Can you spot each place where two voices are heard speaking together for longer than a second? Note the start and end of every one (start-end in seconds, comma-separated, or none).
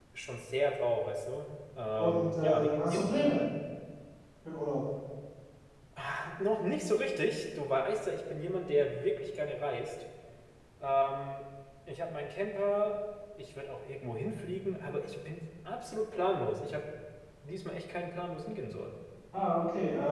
2.0-3.2